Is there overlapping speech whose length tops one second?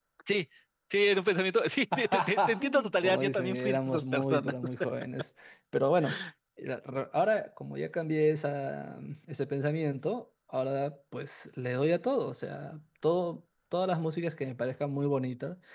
Yes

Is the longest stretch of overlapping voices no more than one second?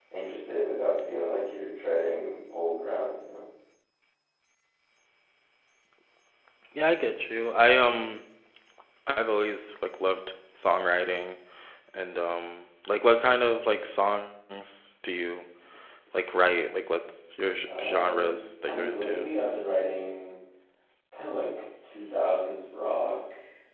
No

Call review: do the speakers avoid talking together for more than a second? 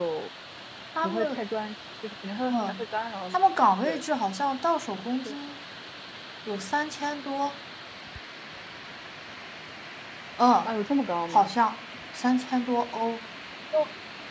Yes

